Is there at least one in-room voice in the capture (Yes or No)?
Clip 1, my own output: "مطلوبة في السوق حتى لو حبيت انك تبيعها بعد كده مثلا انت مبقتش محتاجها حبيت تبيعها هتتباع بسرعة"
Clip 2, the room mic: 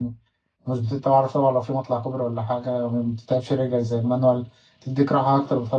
Yes